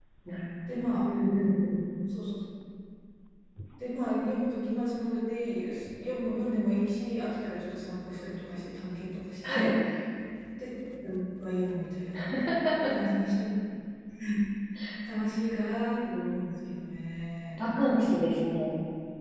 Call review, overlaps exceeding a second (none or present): none